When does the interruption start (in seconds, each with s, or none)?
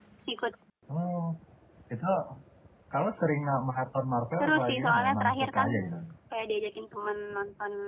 4.4 s